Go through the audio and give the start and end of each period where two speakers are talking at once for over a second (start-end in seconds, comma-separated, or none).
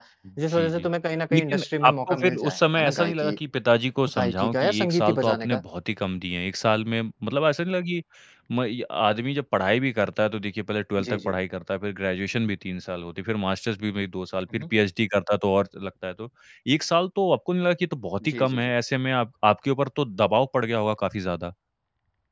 1.3-3.3, 4.1-5.6